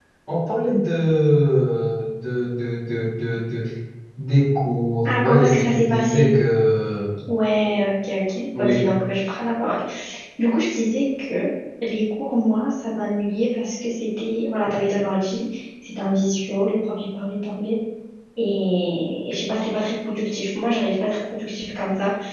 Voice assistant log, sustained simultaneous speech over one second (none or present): present